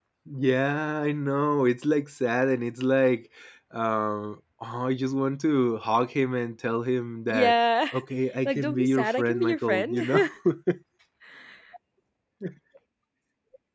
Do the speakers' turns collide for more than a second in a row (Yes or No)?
Yes